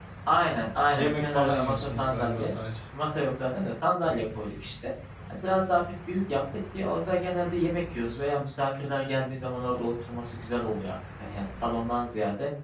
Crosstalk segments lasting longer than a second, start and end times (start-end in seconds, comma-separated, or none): 0.9-2.5